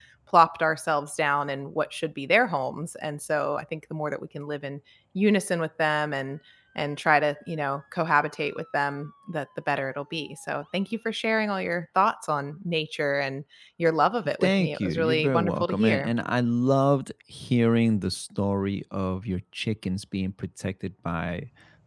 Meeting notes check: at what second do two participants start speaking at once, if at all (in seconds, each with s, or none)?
14.4 s